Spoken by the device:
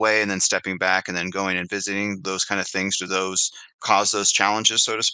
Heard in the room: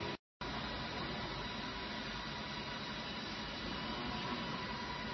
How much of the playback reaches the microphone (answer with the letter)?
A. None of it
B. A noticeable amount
A